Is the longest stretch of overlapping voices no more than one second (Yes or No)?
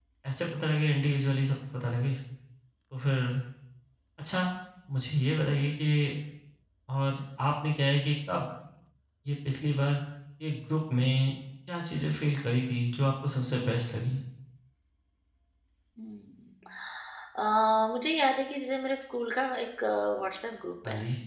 Yes